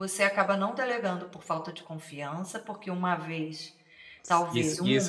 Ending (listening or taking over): taking over